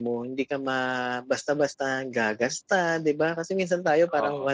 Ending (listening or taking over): listening